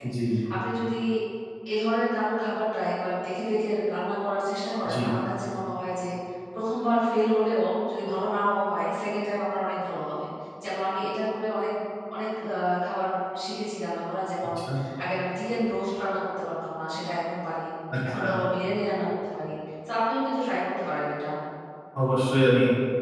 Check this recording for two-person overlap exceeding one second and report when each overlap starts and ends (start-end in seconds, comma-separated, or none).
none